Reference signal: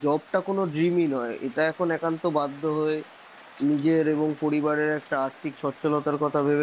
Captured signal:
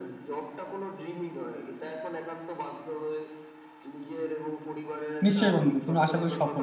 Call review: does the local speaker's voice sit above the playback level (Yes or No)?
Yes